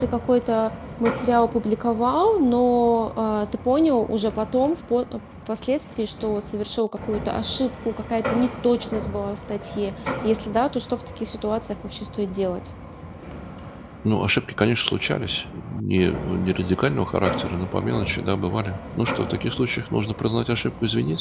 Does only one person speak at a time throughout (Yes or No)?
Yes